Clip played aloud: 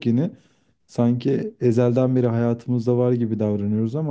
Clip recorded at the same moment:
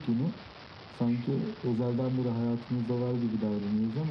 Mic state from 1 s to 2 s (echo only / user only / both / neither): echo only